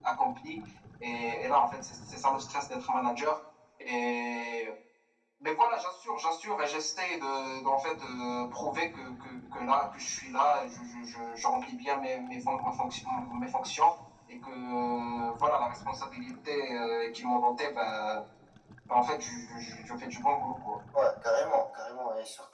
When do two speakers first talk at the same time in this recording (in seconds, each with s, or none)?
none